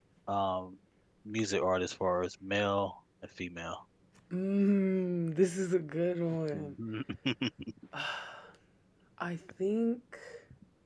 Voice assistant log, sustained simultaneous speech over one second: none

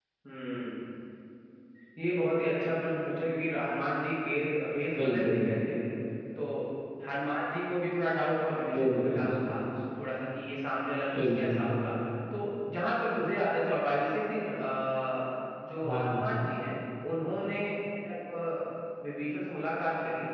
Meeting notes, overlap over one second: none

